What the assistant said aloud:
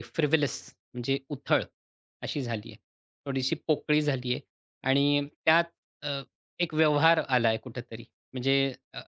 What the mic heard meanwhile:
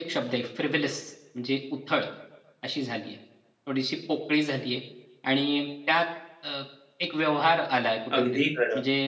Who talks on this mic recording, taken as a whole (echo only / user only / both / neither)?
both